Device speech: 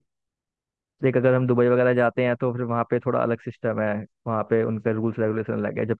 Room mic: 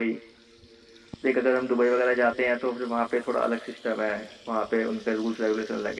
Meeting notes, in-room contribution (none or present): none